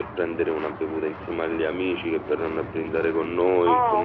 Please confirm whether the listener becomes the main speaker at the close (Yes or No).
Yes